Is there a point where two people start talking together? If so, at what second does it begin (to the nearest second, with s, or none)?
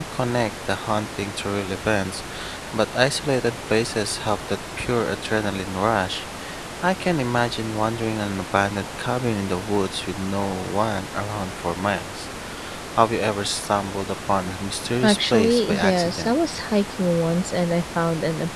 15 s